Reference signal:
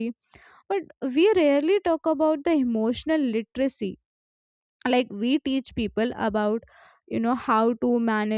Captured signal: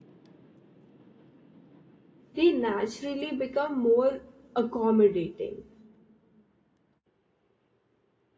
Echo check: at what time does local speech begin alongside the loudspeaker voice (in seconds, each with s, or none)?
2.3 s